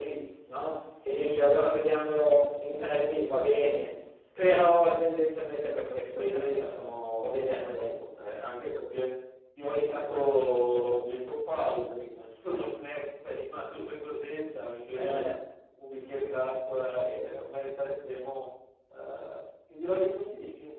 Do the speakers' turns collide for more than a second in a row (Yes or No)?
Yes